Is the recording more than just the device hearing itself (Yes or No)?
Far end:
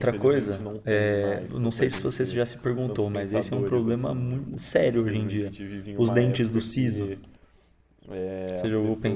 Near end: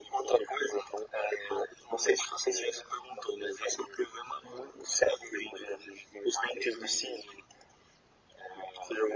No